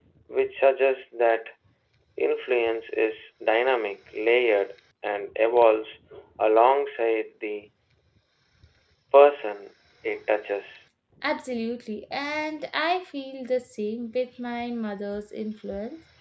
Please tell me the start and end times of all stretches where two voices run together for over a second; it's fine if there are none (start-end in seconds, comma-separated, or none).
none